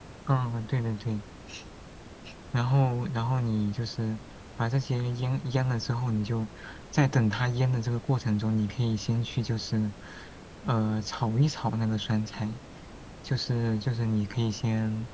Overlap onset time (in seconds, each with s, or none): none